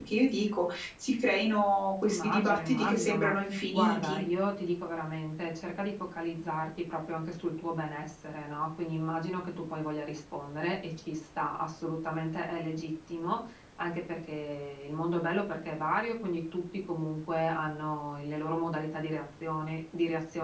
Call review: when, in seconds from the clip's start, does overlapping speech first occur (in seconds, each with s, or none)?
2.0 s